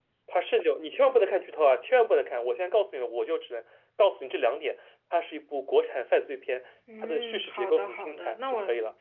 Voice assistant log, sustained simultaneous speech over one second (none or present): present